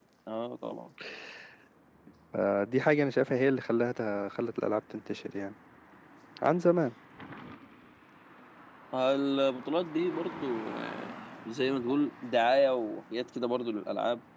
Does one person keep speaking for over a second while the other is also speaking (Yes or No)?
No